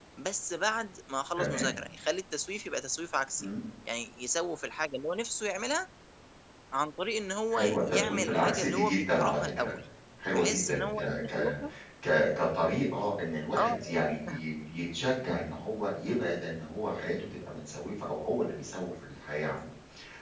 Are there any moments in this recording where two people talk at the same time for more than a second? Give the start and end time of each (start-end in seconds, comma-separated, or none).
7.5-9.7, 10.3-11.5